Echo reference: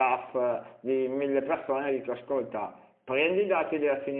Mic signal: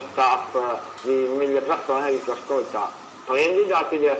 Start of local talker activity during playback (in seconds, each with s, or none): none